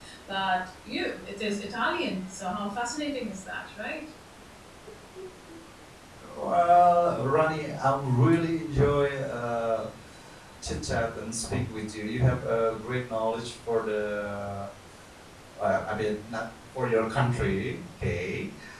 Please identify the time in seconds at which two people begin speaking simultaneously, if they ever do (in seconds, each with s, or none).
none